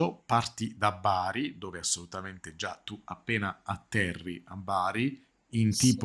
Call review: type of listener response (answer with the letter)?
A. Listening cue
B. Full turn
A